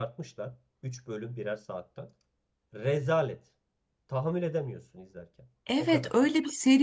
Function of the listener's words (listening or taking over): taking over